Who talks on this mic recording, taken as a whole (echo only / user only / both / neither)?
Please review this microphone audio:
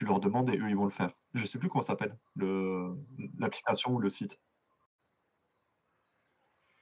echo only